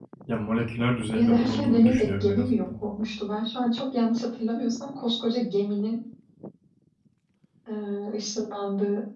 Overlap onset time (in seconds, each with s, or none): 1.1 s